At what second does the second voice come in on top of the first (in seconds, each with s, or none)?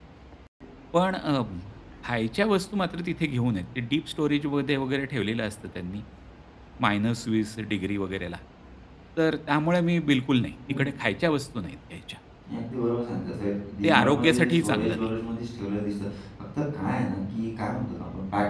13.8 s